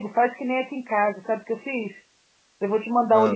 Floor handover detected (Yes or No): No